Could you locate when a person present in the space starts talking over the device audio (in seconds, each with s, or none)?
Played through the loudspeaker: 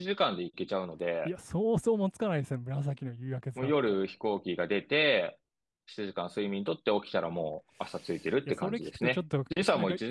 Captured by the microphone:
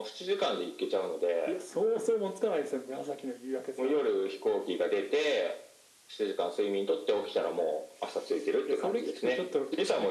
none